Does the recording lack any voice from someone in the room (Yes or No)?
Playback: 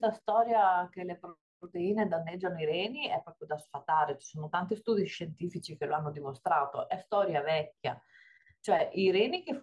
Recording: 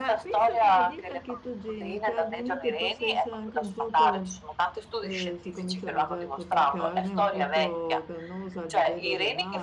No